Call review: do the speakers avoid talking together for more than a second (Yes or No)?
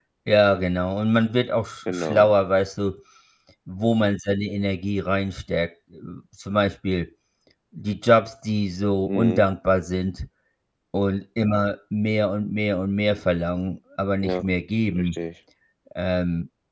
Yes